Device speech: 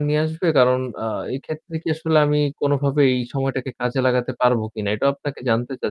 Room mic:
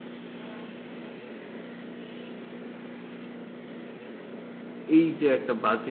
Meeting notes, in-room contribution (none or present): present